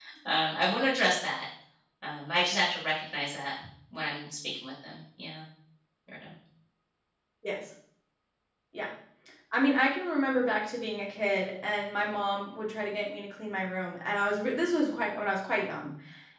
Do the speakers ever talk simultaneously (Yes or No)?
No